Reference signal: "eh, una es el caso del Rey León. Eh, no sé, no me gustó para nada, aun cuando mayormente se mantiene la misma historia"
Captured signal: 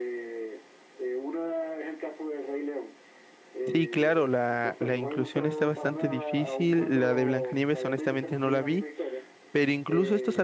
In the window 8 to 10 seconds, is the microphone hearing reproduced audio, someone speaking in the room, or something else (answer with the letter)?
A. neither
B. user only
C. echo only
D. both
D